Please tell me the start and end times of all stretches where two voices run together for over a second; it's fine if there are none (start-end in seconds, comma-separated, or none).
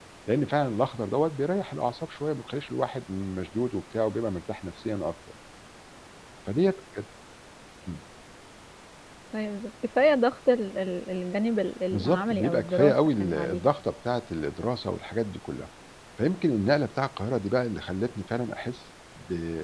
11.9-13.7